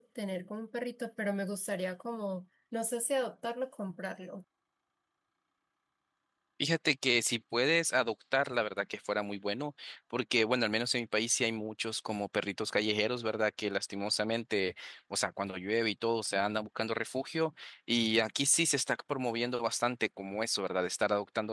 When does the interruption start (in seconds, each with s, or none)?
none